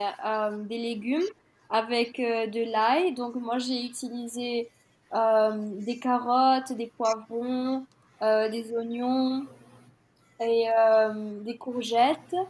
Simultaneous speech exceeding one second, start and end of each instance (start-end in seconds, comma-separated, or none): none